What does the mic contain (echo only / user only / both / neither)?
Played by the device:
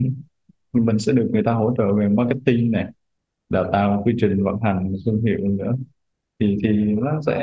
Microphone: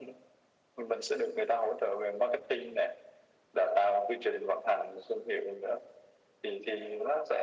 echo only